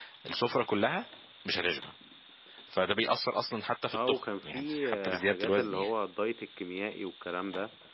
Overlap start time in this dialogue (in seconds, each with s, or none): 3.9 s